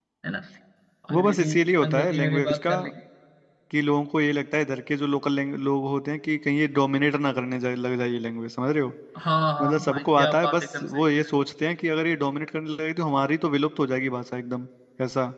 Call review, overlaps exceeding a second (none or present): present